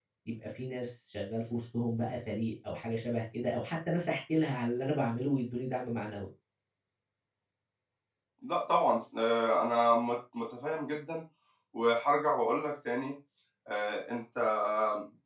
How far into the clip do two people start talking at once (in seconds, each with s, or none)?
none